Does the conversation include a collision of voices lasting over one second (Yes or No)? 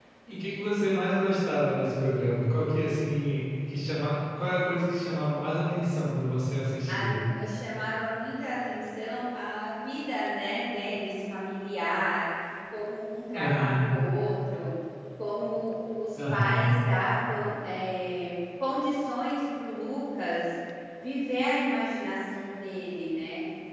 No